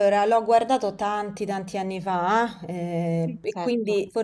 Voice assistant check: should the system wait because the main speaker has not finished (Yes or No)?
Yes